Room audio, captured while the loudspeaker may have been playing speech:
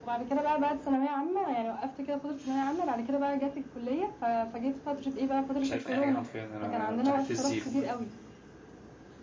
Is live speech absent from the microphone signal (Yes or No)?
No